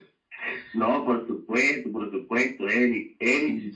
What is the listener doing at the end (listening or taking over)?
listening